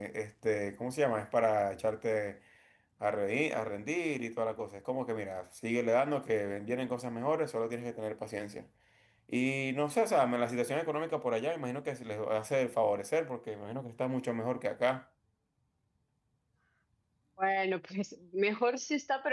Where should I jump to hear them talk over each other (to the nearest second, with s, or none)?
none